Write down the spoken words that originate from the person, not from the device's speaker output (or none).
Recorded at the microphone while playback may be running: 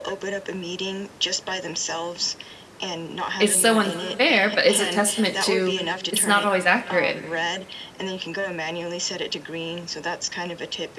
it's so unfair, but is a testament to it's not always accurate.